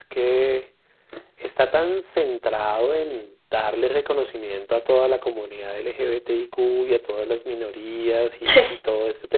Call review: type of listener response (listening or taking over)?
listening